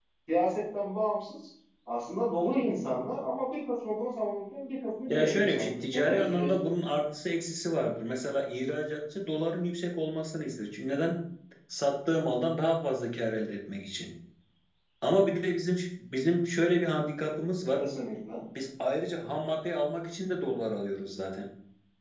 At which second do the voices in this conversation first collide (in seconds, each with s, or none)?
5.1 s